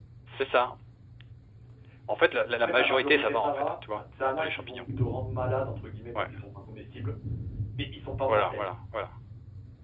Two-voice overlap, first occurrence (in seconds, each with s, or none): 2.6 s